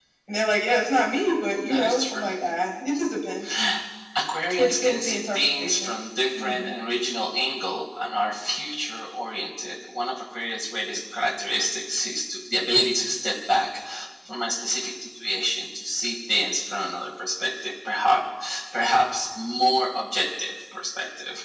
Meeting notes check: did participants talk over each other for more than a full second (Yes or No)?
Yes